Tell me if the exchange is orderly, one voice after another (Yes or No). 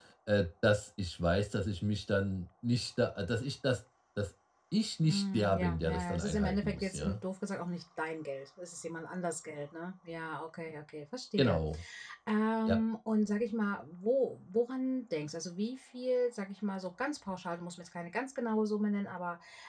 No